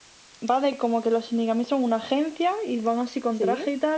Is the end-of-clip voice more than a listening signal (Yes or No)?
No